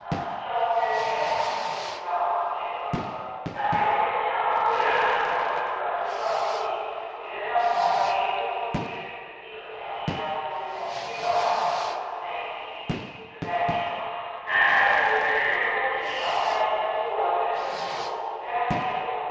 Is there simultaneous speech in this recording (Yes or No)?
Yes